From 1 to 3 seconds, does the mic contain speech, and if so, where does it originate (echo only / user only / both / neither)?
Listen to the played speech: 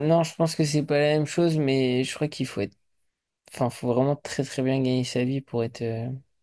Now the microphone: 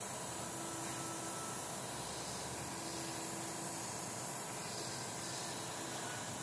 neither